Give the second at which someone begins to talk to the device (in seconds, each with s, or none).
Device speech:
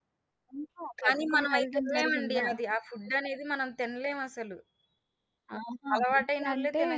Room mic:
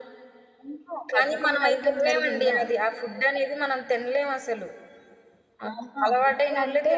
none